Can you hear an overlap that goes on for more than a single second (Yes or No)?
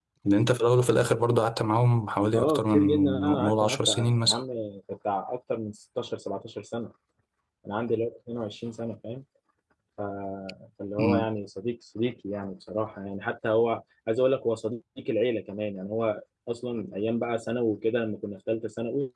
Yes